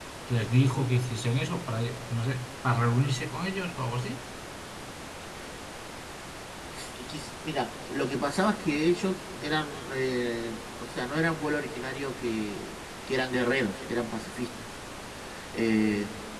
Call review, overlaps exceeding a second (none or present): none